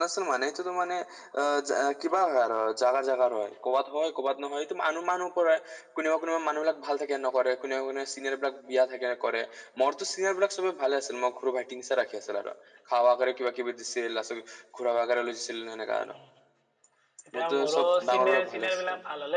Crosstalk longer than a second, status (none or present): present